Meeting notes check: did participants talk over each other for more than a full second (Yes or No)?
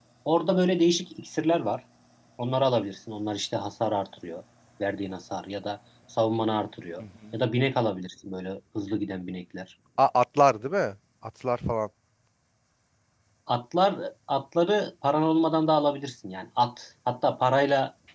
No